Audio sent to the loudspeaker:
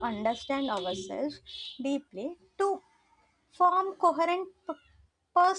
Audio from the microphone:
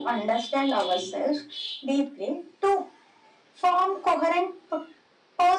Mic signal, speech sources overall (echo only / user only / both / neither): echo only